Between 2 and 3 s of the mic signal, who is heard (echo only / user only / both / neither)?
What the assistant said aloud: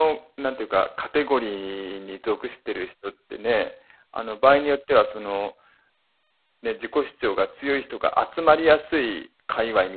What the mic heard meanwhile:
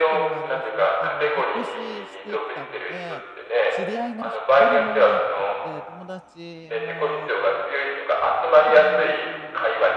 both